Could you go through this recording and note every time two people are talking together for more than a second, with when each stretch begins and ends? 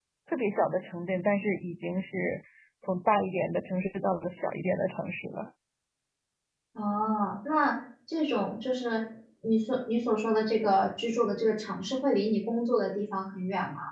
none

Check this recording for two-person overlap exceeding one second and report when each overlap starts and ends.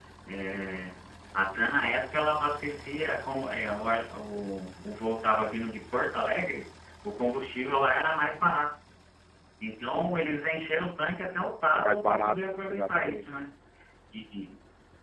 11.7-13.3

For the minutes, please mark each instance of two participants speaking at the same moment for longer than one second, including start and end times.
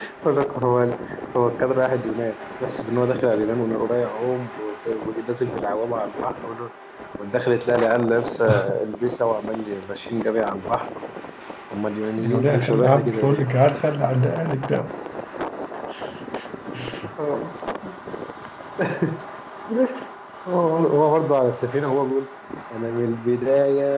12.2-13.5

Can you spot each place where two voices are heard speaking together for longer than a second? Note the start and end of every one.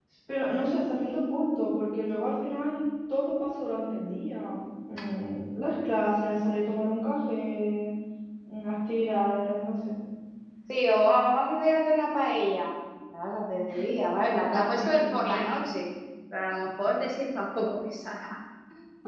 14.2-15.5

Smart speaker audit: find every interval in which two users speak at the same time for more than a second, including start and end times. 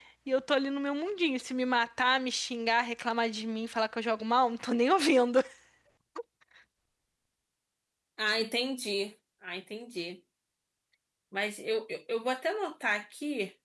none

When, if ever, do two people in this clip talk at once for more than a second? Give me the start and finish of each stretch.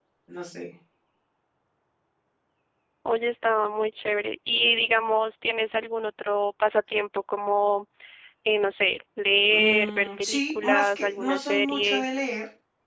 9.5-12.0

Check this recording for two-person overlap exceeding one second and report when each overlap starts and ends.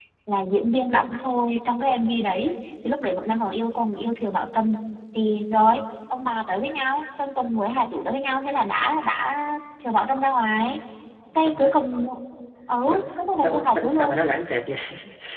12.8-14.2

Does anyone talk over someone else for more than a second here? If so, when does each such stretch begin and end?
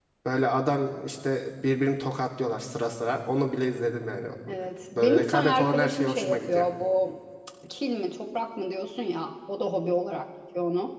5.0-6.7

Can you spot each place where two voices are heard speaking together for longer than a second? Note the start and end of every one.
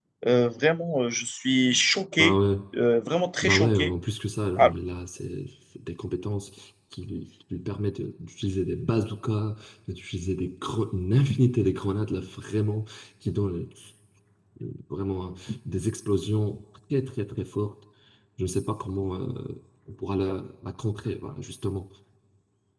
none

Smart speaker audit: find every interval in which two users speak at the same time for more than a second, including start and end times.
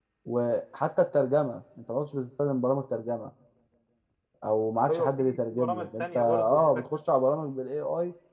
4.9-6.8

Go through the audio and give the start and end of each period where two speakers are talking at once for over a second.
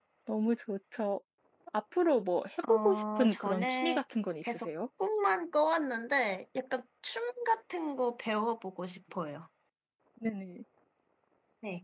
2.7-4.0

